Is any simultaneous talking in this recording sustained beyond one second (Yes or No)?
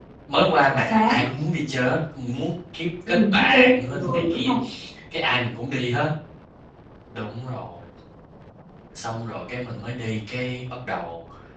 Yes